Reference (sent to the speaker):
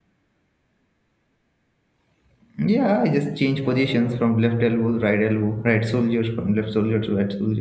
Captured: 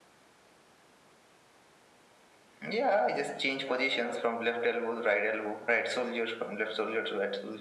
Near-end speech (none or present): none